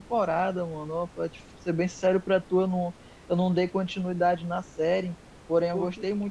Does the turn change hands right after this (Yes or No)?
No